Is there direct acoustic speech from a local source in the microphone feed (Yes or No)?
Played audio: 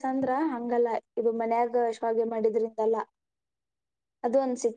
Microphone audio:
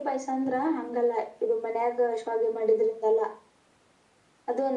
No